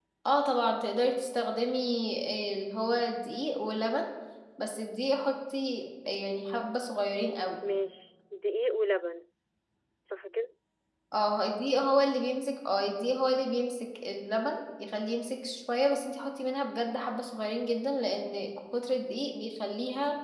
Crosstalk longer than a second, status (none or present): none